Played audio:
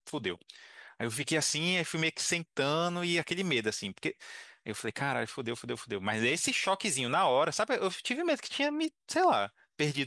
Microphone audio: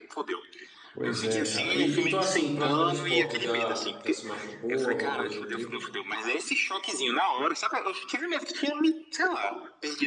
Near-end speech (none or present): present